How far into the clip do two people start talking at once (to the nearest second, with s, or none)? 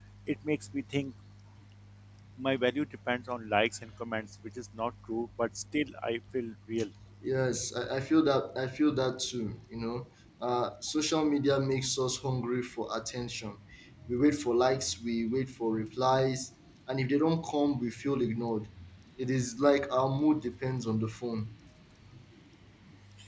none